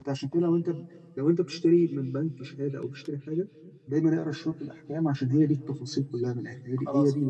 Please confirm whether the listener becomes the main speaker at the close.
Yes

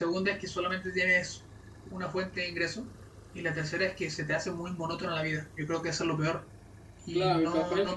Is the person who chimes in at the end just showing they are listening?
No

